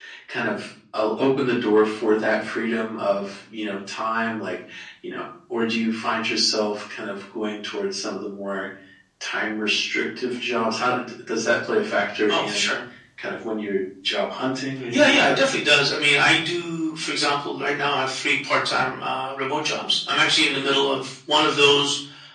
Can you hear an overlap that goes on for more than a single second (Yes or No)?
No